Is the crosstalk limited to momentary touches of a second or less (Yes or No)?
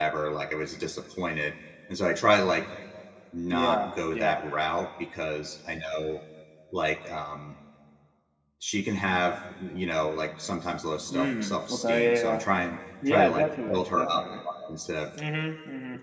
No